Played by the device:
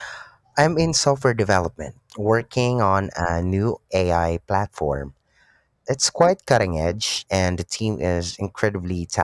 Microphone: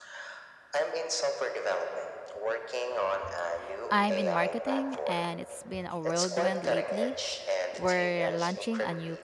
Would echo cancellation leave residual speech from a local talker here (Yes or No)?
Yes